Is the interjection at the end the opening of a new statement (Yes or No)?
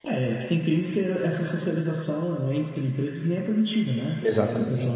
No